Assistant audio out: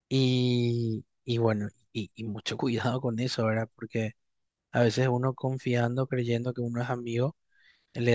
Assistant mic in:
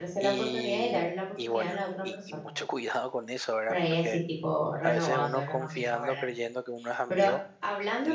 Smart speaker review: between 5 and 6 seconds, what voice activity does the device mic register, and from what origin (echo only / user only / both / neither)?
both